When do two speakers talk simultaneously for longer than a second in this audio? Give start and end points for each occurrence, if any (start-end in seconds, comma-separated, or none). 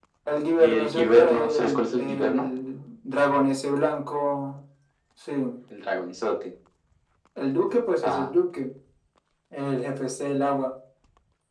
0.6-2.5